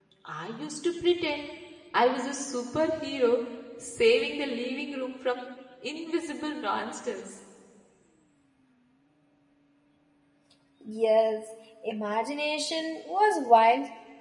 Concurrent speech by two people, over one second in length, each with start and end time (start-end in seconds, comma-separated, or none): none